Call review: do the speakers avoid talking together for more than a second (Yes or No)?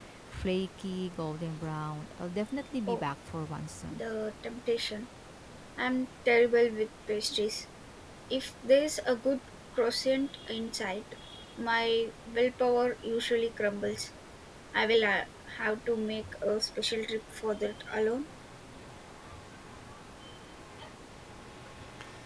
Yes